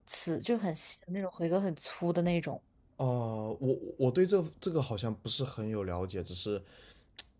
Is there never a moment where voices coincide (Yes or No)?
Yes